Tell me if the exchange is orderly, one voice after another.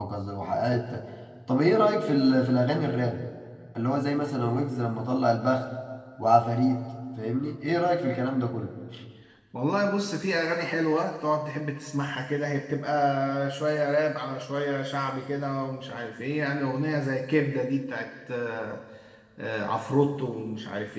Yes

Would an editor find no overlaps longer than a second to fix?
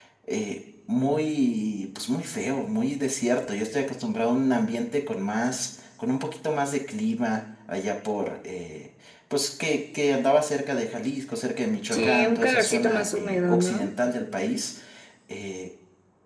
No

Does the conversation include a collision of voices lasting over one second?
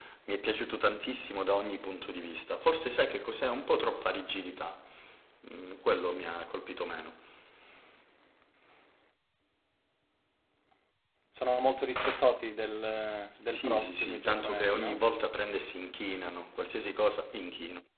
Yes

